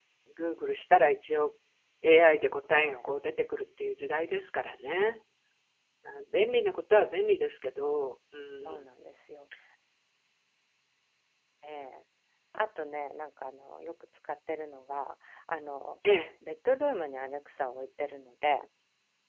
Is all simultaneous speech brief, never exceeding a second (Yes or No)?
Yes